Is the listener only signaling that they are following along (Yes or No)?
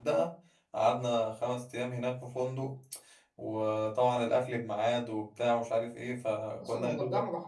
No